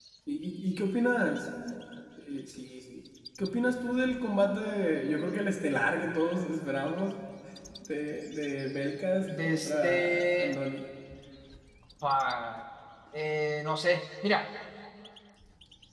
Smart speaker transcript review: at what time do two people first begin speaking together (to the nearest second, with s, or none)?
9 s